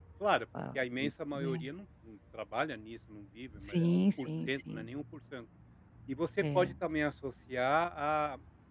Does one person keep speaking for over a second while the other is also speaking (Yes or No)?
Yes